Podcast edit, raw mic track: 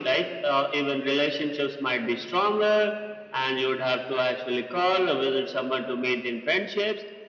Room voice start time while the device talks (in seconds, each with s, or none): none